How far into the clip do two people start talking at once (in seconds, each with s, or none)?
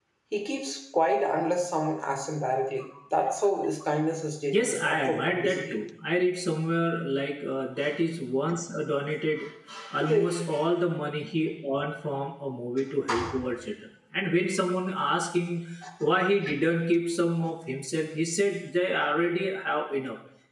4.5 s